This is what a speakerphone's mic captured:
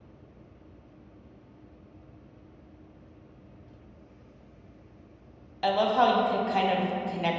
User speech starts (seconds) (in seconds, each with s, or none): 5.6 s